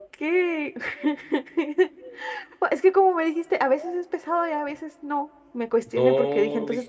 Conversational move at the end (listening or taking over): taking over